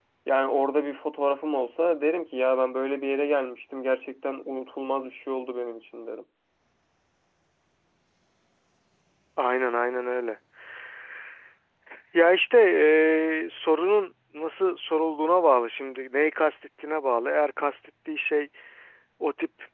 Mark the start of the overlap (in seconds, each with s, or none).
none